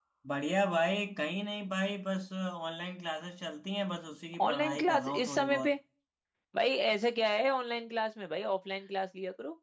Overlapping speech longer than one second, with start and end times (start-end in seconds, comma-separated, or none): 4.4-5.7